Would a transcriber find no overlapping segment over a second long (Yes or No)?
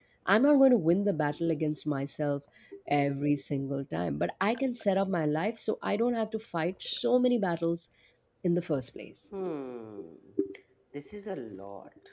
Yes